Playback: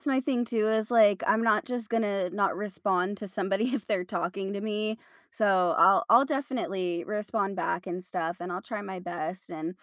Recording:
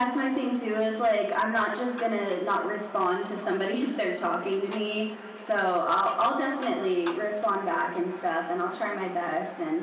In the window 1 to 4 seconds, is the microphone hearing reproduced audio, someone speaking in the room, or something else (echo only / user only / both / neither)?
echo only